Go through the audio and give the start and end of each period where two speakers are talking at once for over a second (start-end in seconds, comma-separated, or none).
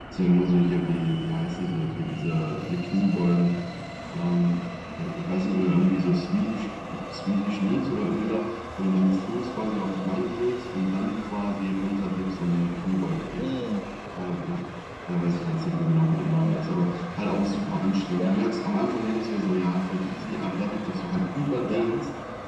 none